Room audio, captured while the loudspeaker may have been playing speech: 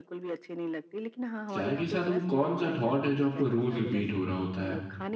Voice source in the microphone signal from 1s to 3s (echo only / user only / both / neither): both